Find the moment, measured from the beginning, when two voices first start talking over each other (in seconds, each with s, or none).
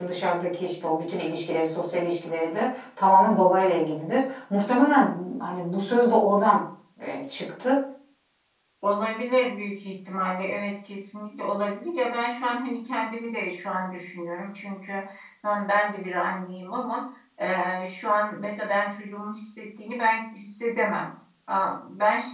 none